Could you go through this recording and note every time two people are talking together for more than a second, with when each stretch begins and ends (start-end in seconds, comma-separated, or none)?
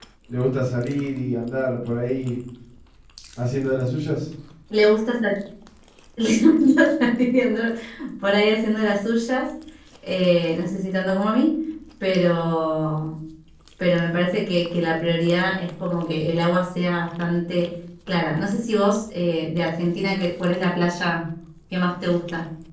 none